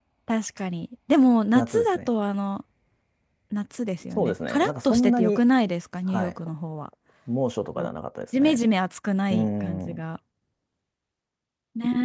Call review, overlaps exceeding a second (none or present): present